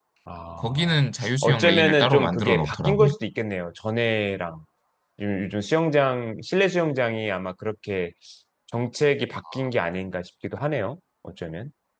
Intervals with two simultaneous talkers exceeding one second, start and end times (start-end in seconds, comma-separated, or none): 1.4-3.1